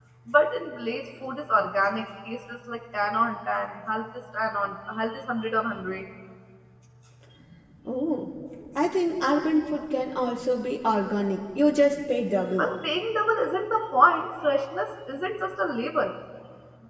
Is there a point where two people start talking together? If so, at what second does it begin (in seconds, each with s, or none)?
none